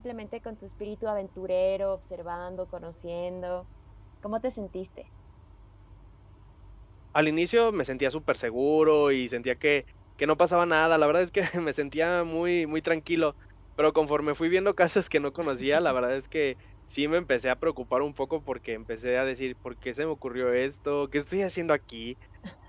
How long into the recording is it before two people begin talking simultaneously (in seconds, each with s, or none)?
none